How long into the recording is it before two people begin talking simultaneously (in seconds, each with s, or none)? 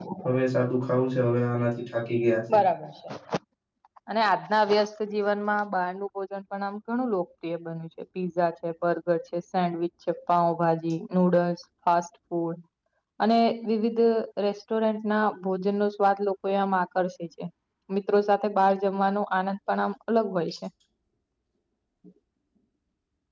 none